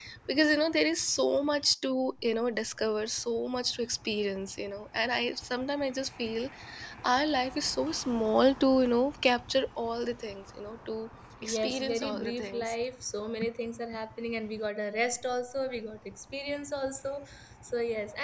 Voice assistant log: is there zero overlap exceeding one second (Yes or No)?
No